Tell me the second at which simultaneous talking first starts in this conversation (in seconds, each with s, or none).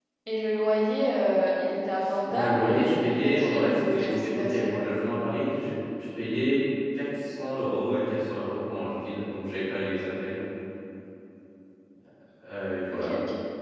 2.3 s